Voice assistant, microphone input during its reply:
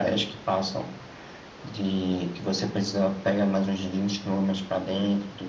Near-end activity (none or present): none